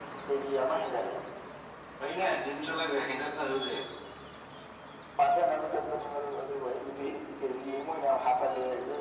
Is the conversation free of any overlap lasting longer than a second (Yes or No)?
Yes